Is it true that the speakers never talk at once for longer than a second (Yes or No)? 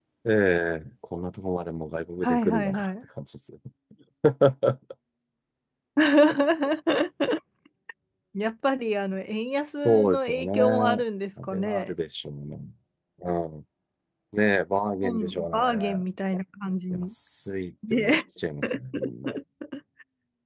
No